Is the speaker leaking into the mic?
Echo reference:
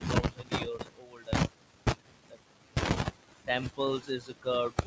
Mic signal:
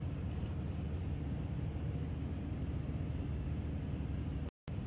No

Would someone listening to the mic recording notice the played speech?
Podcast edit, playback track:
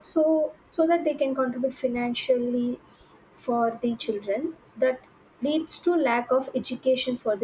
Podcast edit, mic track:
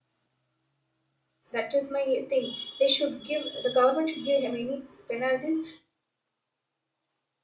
No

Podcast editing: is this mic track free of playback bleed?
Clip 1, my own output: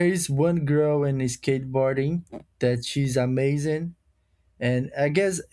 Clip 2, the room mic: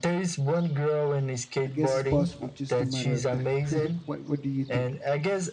No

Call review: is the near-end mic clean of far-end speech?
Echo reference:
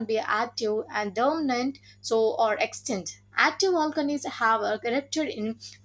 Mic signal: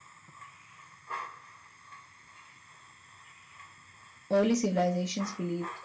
Yes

